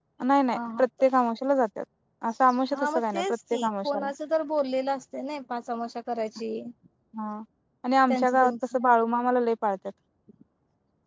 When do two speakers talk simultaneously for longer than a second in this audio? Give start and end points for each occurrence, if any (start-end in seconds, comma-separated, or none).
2.7-4.0